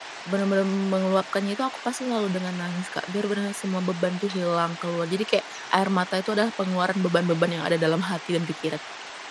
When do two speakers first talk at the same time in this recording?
none

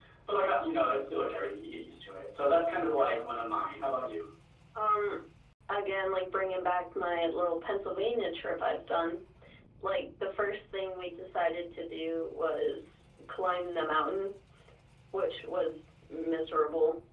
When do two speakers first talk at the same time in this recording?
none

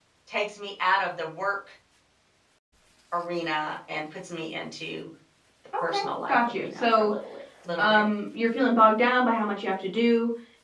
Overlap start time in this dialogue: 6 s

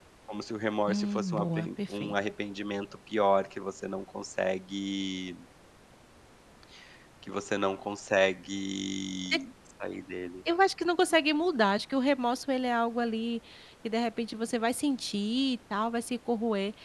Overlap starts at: 1 s

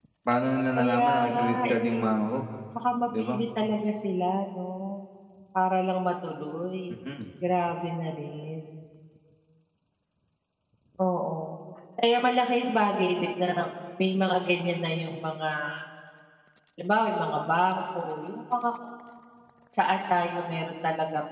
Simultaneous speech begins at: 1 s

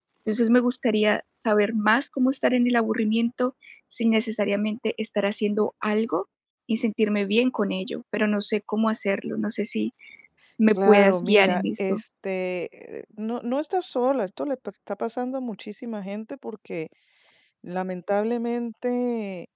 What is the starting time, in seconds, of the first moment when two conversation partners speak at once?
11 s

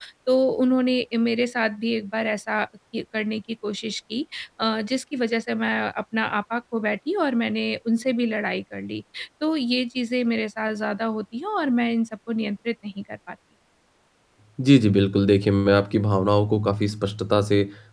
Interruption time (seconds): none

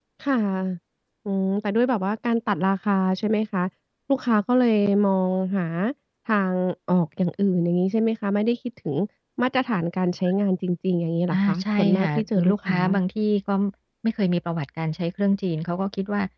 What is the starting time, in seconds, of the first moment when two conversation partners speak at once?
11 s

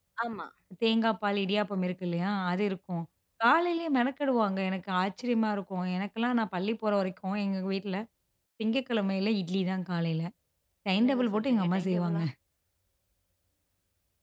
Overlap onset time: 11 s

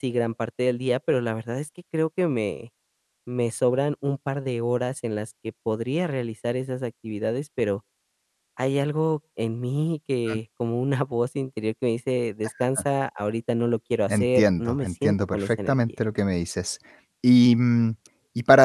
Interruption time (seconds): 14 s

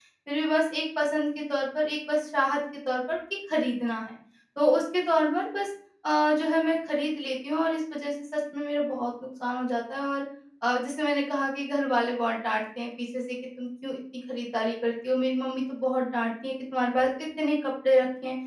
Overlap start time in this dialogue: none

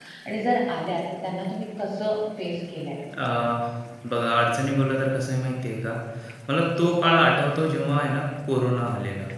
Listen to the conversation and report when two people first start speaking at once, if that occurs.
none

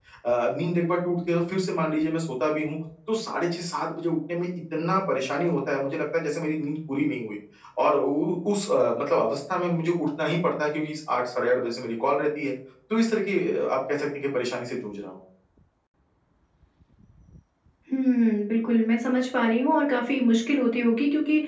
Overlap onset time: none

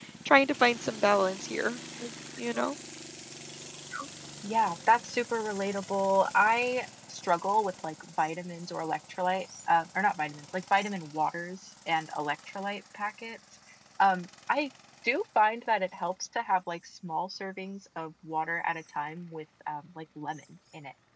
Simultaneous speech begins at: none

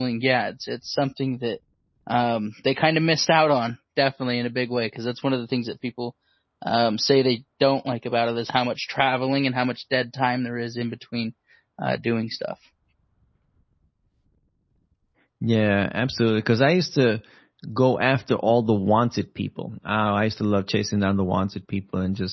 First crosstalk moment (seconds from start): none

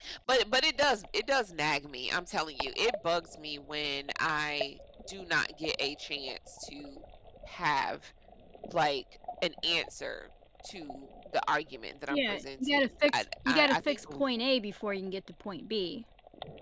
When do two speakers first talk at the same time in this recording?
12 s

